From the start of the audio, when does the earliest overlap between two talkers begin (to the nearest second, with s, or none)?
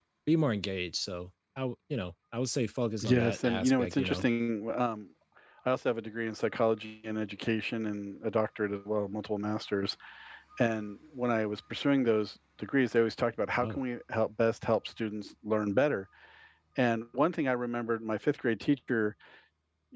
3 s